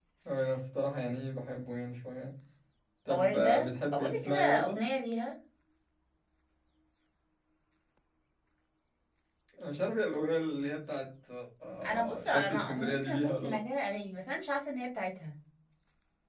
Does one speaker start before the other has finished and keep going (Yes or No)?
Yes